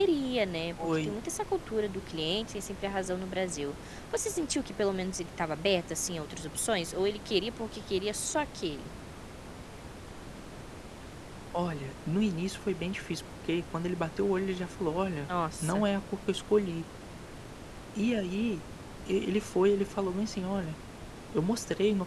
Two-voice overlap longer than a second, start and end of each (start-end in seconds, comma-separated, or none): none